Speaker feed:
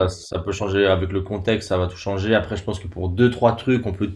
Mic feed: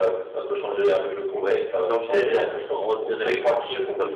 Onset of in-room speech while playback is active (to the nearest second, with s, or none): 1 s